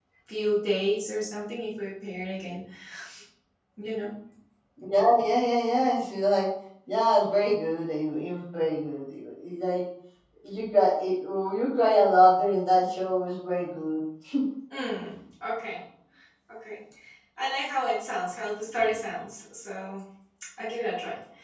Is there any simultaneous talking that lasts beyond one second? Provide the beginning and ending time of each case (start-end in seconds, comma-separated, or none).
none